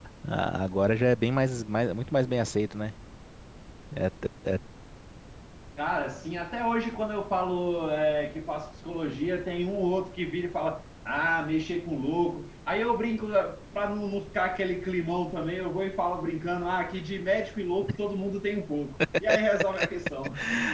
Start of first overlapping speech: none

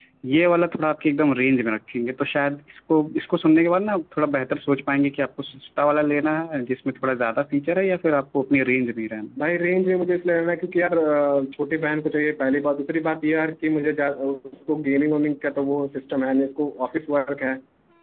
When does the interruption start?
none

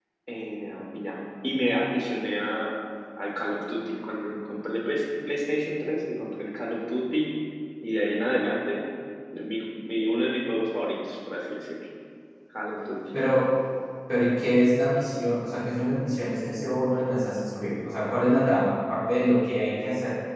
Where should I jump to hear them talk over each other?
none

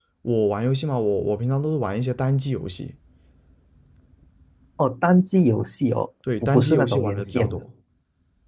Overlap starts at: 6.3 s

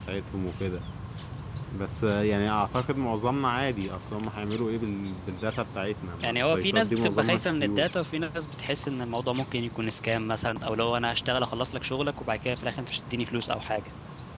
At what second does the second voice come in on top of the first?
6.2 s

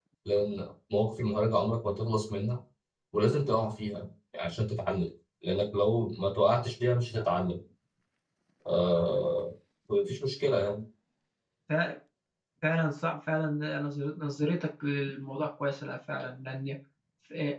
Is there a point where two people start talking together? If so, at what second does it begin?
none

